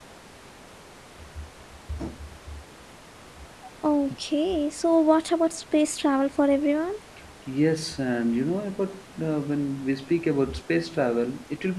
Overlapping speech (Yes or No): No